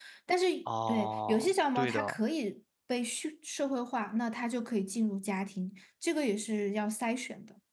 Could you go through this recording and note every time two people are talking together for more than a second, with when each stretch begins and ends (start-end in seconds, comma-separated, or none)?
0.9-2.2